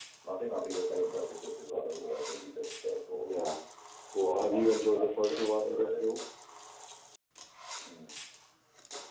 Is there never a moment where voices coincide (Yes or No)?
No